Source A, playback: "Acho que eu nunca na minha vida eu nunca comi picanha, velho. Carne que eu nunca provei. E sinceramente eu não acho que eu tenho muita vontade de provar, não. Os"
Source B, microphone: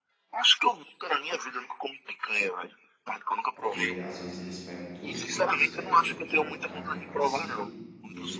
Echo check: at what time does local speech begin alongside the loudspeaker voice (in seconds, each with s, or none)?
3.6 s